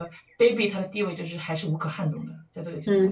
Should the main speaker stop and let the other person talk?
Yes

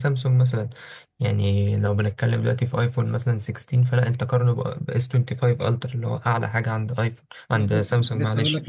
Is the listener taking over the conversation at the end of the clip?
Yes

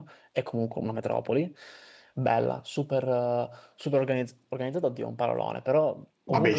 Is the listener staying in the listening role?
Yes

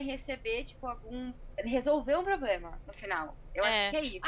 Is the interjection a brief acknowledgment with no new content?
No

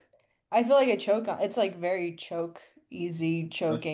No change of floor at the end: No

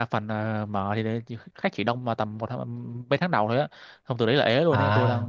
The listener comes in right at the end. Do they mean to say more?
No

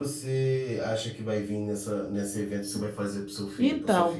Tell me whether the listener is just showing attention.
No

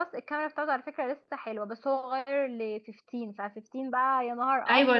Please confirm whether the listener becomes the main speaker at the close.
Yes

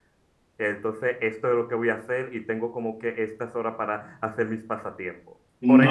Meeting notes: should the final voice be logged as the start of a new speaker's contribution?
No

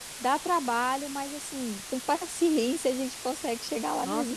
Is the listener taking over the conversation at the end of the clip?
Yes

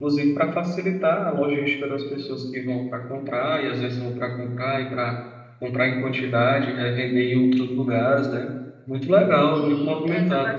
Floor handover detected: Yes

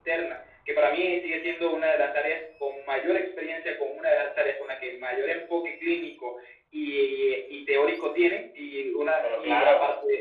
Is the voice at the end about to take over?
No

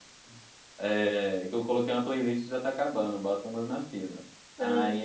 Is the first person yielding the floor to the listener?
No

